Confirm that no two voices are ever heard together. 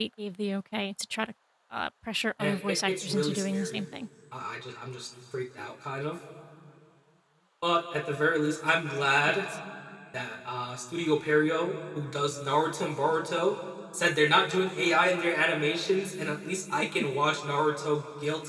No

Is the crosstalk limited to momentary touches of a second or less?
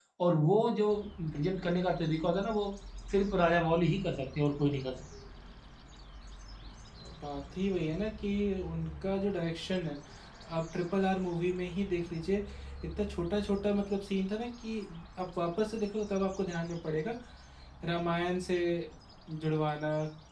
Yes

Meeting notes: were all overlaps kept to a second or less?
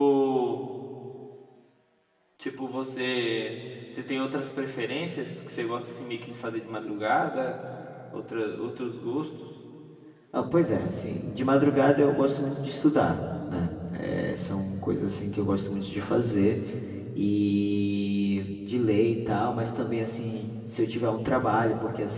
Yes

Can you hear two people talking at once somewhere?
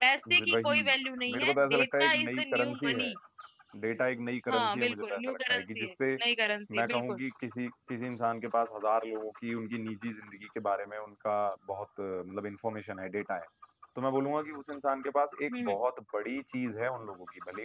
Yes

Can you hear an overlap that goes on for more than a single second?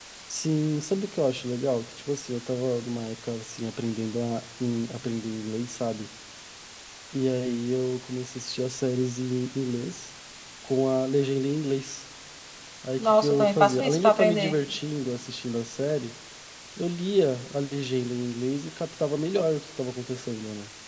Yes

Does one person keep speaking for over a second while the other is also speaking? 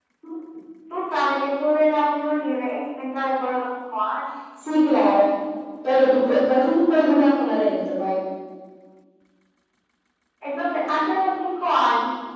No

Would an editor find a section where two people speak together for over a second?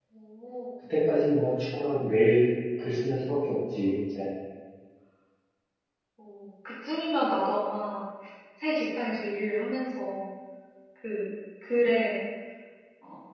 No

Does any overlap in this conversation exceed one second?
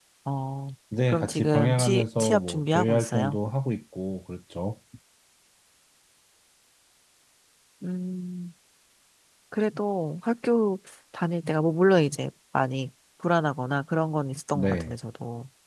Yes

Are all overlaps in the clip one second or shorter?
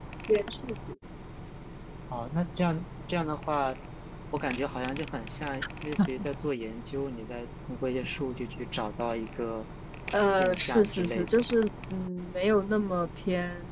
No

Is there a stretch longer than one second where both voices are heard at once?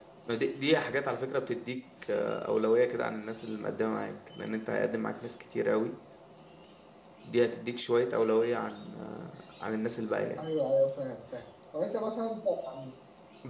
No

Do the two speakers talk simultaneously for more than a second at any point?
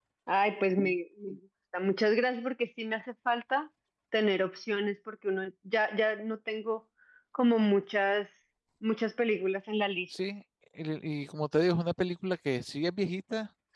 No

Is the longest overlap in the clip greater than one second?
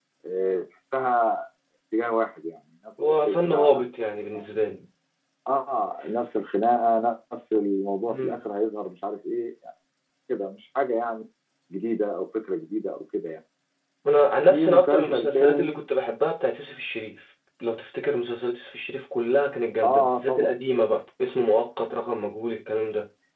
Yes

